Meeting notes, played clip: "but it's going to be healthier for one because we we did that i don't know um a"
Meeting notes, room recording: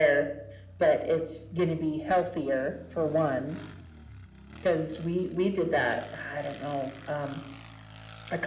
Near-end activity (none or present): none